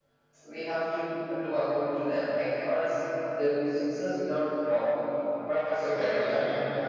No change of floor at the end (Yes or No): No